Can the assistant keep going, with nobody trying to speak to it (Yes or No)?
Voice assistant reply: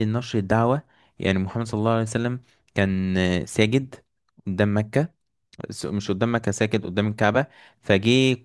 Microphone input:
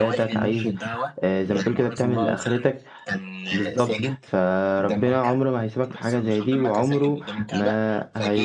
No